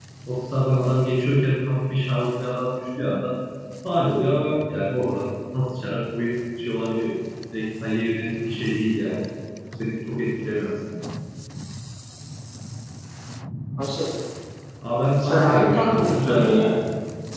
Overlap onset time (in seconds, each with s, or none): 15.2 s